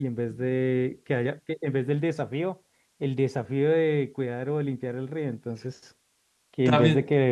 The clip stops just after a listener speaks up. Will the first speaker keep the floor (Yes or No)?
Yes